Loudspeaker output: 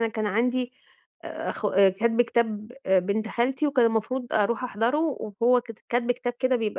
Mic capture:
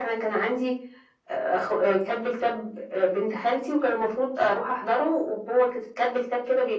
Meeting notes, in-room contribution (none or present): none